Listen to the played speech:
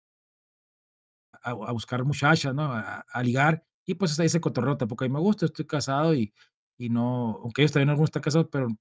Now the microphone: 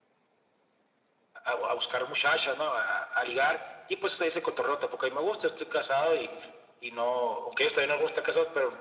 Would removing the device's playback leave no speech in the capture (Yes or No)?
Yes